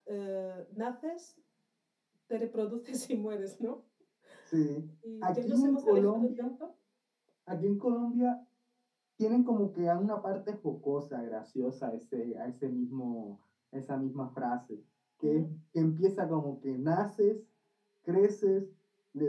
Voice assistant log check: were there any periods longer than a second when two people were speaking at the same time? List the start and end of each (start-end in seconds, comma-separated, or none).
5.2-6.5